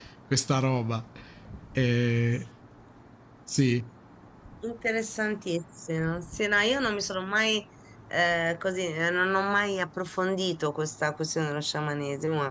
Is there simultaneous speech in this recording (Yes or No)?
No